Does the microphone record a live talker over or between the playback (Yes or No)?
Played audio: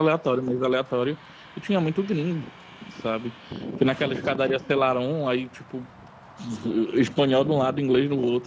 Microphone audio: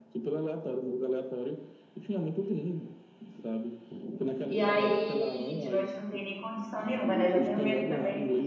Yes